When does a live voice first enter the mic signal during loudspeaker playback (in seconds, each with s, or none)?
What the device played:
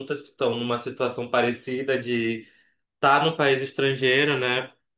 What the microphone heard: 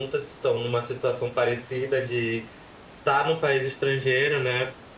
none